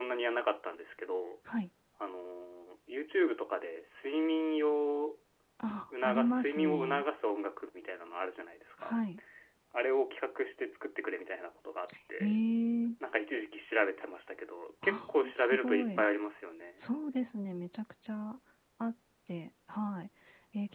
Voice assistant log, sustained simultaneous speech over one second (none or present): present